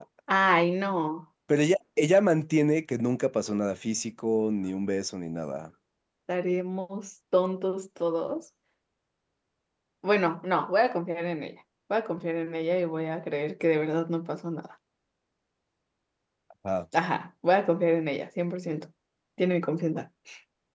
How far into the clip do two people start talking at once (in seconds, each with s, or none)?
none